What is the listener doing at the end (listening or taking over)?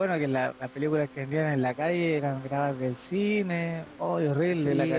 taking over